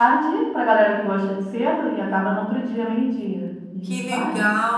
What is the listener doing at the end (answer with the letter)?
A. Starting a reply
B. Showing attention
A